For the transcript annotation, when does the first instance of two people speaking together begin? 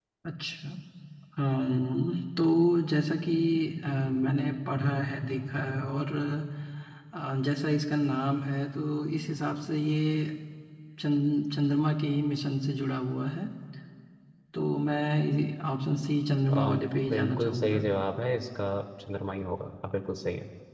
16 s

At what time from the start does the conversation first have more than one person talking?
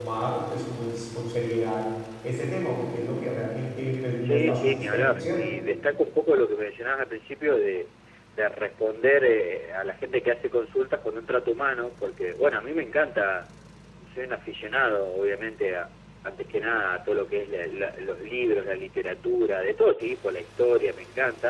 4 s

